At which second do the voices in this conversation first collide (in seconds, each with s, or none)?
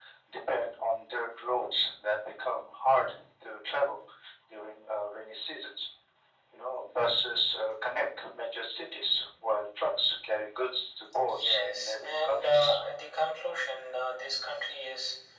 11.3 s